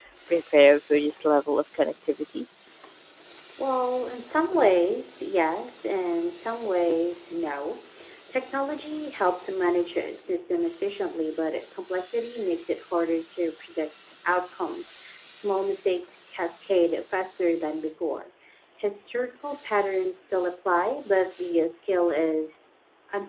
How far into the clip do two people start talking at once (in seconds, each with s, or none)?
none